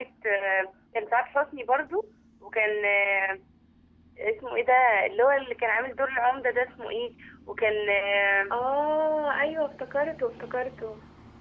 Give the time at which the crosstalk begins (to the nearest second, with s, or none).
none